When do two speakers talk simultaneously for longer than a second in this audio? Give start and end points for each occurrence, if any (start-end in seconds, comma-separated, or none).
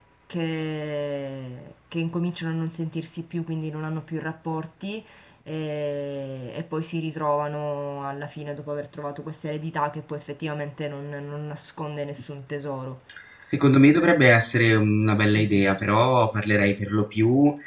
none